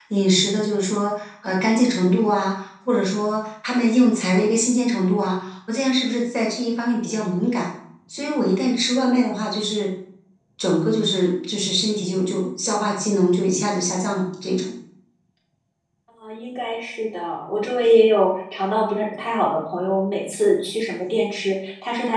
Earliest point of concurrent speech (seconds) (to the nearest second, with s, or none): none